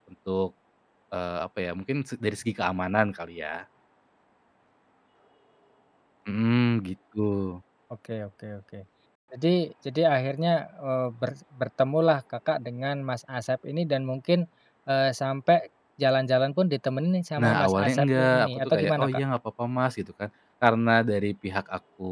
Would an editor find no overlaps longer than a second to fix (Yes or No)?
No